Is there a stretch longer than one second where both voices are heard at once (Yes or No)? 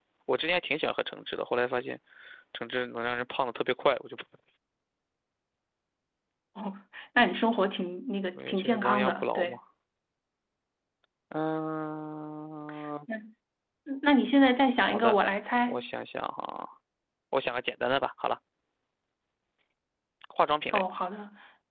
Yes